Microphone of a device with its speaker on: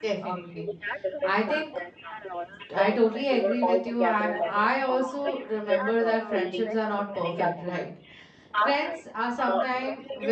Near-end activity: present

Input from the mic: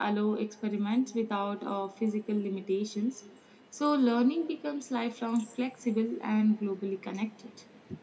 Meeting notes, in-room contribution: none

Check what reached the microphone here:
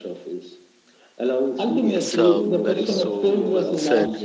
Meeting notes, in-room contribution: present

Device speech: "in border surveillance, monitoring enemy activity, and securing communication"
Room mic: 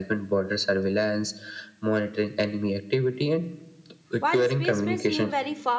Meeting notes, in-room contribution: present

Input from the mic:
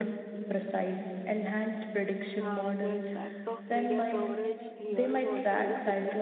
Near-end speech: present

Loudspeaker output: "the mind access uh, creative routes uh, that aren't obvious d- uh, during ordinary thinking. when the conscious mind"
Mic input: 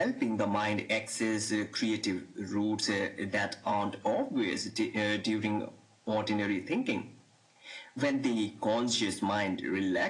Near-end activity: none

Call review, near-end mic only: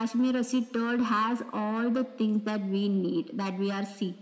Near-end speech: none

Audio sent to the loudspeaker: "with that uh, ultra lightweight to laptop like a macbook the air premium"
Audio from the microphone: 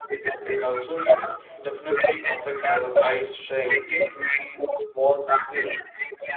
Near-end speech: present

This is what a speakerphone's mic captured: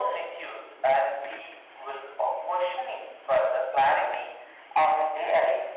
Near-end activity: none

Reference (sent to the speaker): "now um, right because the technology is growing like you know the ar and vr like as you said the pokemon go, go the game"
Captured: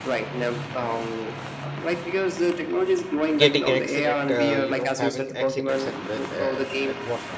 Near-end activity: present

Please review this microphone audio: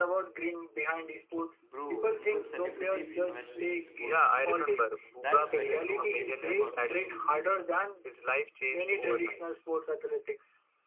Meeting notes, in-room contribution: present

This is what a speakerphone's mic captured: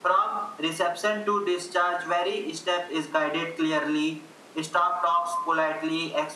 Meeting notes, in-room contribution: none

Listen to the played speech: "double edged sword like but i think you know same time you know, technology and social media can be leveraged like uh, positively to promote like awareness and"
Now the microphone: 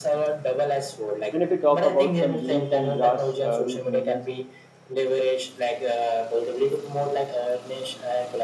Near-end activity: present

